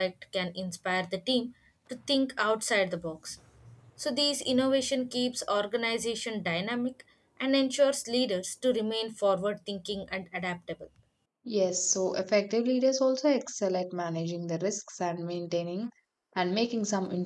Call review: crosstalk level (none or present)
none